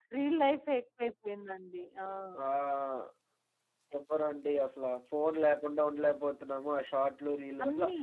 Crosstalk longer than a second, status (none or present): none